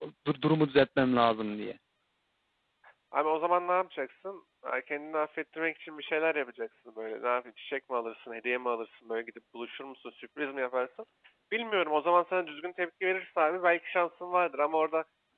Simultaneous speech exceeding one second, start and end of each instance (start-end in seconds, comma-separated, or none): none